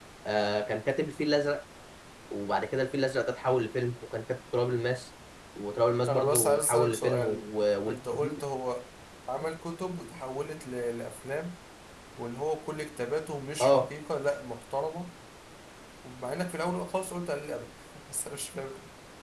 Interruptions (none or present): present